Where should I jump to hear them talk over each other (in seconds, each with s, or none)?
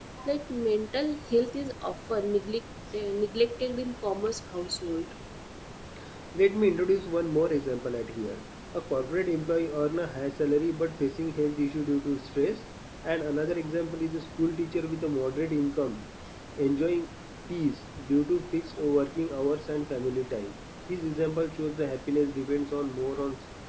none